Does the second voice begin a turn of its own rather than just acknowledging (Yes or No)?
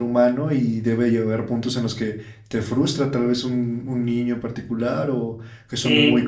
Yes